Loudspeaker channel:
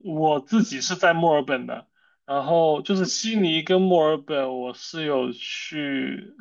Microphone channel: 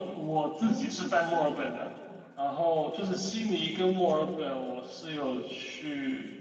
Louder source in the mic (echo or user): echo